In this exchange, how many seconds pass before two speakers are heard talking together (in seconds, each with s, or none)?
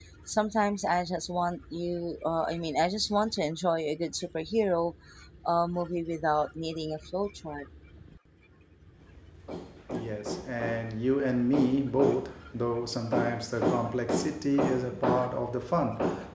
none